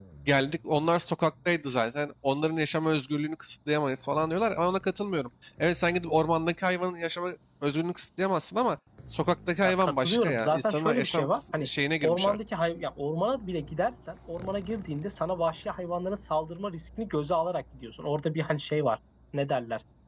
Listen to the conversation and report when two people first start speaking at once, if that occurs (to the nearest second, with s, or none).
10 s